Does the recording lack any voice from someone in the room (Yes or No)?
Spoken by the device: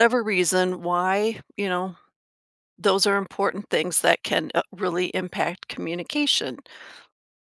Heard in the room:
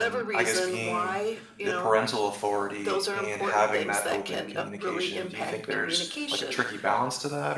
No